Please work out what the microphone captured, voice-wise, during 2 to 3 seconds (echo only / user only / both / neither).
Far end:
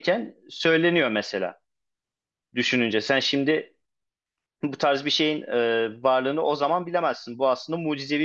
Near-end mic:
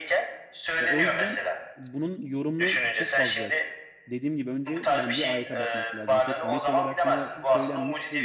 both